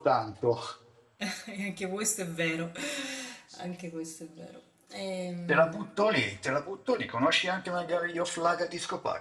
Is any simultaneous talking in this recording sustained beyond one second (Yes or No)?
No